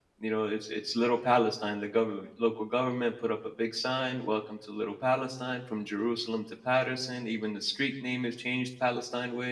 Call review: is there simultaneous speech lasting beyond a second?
No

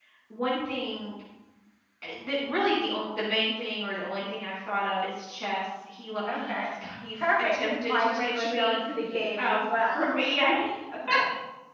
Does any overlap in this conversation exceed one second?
Yes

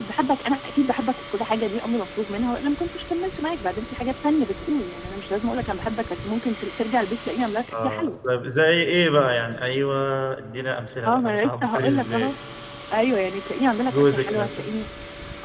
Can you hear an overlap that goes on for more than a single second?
Yes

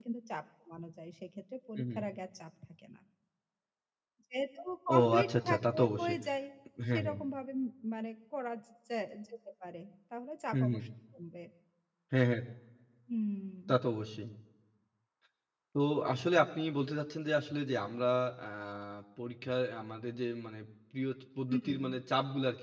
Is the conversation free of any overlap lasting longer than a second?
No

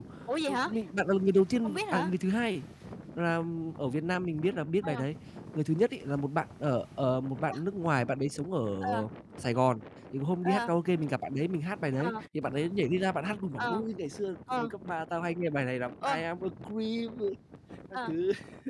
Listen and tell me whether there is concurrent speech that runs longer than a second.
No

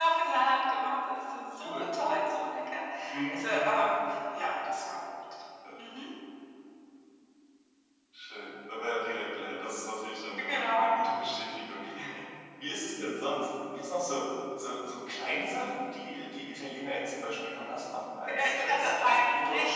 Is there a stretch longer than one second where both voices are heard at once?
Yes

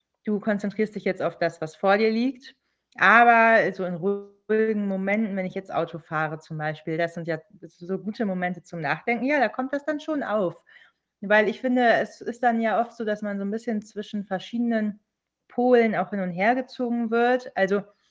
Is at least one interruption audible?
No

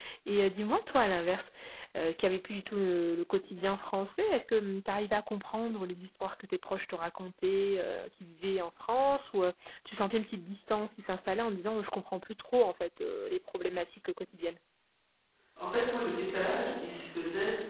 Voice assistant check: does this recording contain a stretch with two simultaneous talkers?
No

